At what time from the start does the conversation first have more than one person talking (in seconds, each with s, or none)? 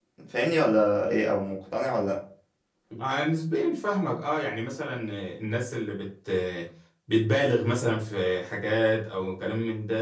none